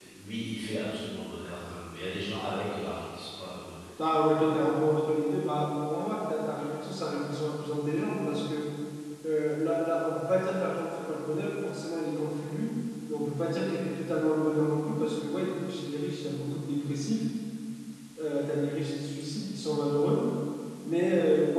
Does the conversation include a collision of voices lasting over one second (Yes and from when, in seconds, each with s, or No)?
No